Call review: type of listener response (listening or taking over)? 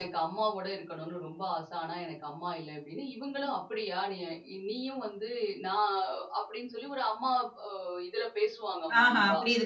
taking over